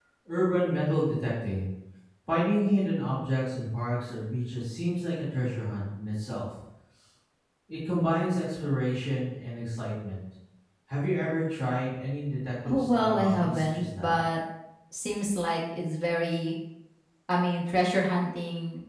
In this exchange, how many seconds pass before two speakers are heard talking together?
12.6 s

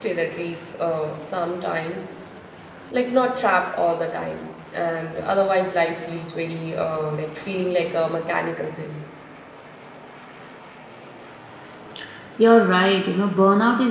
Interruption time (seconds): none

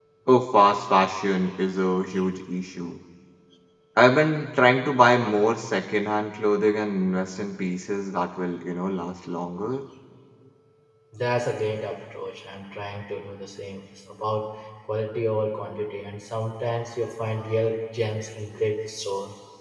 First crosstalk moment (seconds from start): none

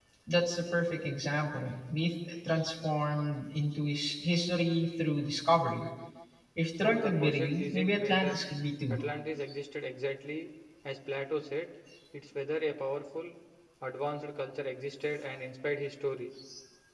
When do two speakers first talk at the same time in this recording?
6.8 s

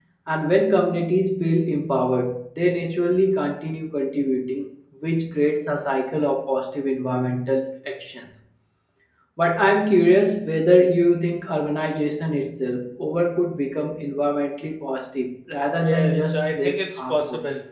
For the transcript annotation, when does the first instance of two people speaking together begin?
15.7 s

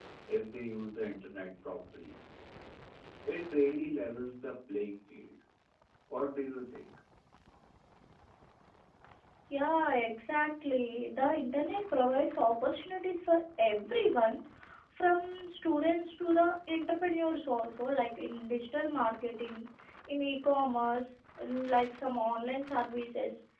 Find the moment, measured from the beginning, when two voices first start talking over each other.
none

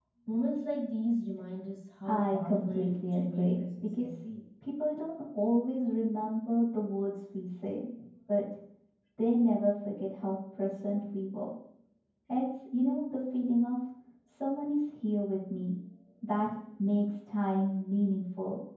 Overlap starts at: 2.0 s

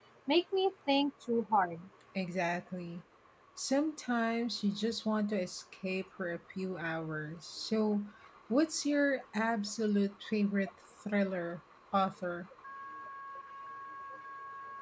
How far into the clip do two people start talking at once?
none

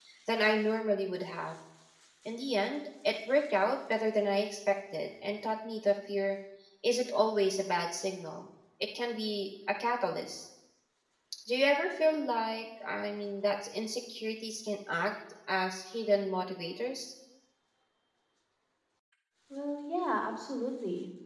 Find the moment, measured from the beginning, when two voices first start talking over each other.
none

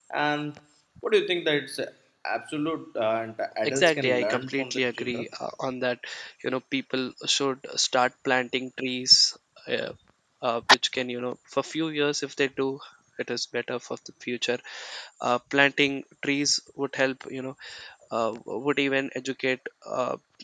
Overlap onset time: 3.6 s

